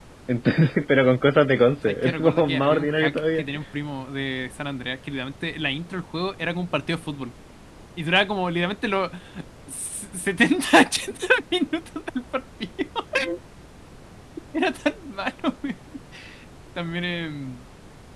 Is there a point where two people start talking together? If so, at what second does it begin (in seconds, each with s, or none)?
1.9 s